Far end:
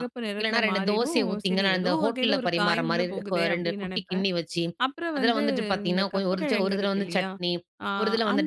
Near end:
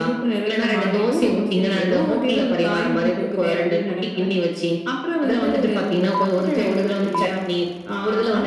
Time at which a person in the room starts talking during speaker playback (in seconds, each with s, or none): none